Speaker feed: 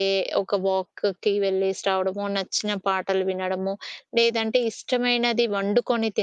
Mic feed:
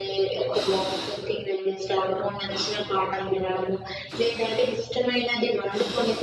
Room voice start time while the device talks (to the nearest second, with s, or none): none